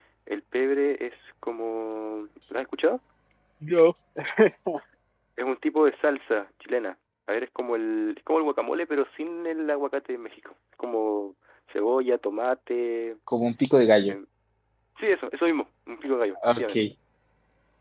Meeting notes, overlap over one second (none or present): none